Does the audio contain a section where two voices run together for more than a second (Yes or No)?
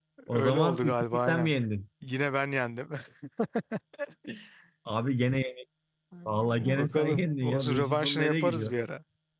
Yes